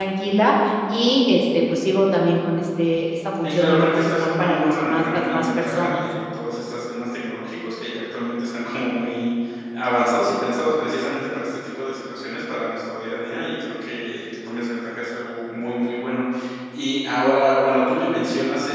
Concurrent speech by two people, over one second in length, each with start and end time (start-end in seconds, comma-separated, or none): 3.4-6.0